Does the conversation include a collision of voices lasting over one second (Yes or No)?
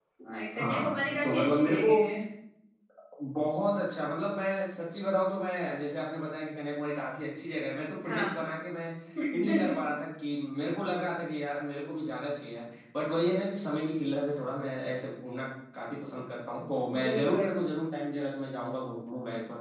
Yes